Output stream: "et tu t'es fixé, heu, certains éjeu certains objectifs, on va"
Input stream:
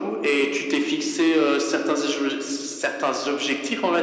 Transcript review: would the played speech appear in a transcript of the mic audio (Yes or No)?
Yes